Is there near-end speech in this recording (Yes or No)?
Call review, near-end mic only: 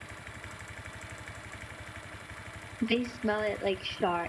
Yes